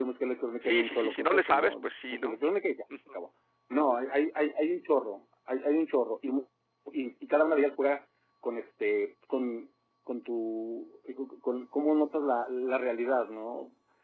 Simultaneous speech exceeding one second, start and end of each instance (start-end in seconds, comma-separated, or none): 0.6-2.4